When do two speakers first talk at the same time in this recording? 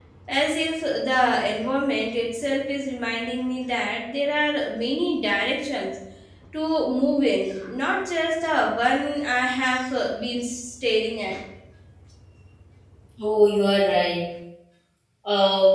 none

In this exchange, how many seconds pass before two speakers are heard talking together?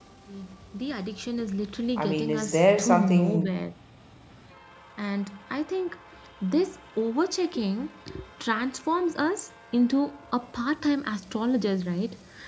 2 s

